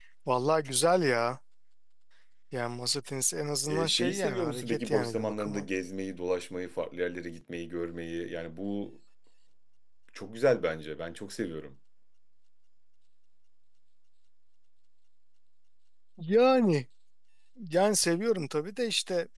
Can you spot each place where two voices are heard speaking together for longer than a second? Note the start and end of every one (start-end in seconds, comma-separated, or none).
3.7-5.6